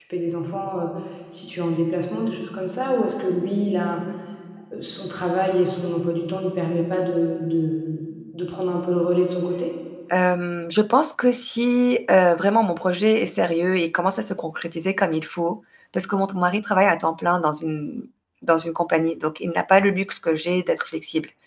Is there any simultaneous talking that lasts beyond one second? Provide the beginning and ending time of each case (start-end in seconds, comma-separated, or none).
none